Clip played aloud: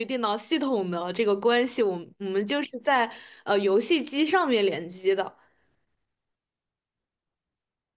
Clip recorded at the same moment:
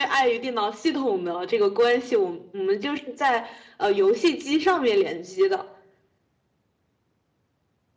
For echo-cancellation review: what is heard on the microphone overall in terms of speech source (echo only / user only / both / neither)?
echo only